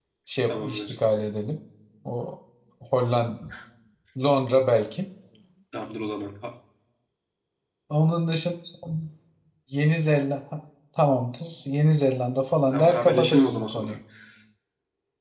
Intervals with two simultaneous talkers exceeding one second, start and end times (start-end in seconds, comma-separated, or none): 12.7-13.9